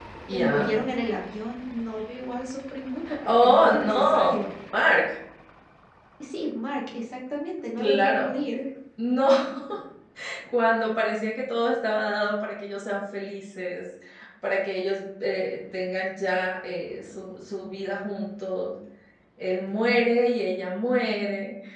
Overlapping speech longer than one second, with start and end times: 3.2-4.5

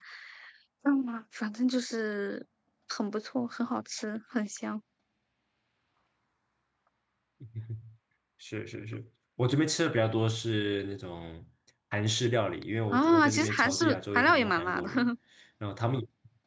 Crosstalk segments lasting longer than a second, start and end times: 12.9-14.9

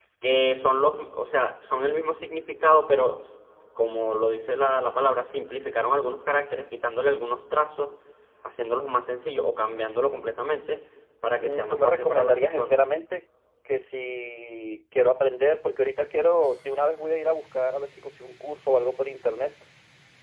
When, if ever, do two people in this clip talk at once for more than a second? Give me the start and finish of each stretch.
11.4-12.8

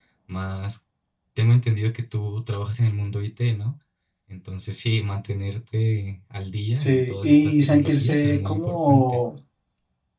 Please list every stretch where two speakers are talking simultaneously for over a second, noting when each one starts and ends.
6.8-9.2

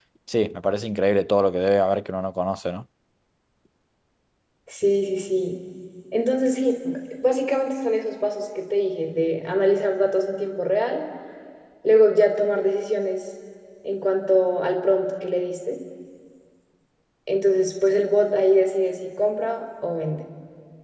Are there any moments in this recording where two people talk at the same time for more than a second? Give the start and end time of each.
none

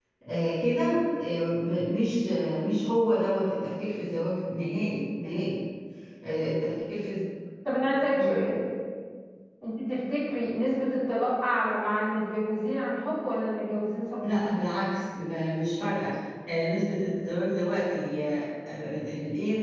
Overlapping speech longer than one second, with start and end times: none

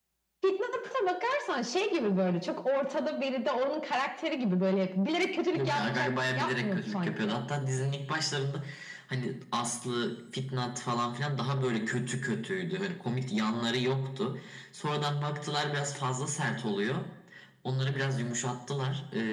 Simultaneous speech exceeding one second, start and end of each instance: 5.5-7.4

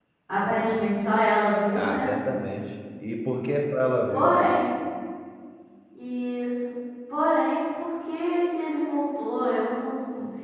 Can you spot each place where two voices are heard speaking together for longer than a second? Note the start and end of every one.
none

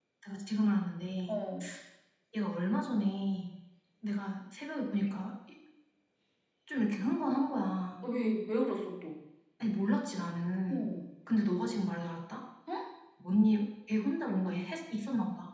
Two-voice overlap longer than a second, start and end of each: none

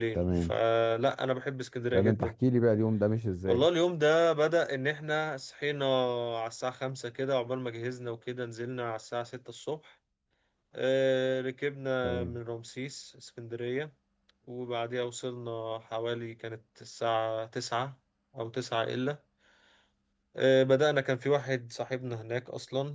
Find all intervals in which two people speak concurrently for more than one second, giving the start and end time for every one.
none

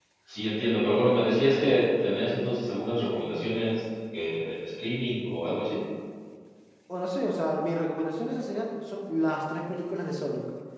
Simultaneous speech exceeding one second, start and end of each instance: none

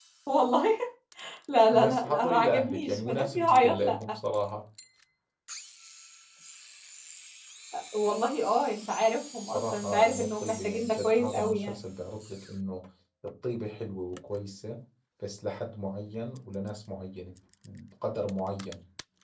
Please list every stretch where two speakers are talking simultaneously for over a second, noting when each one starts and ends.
1.7-4.0, 9.5-11.8

